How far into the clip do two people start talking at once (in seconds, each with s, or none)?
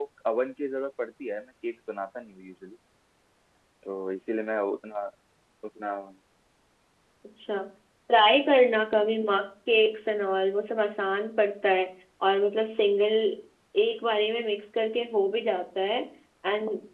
none